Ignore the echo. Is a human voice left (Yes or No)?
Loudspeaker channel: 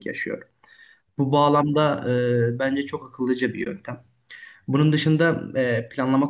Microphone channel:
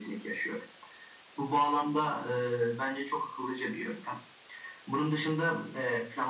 No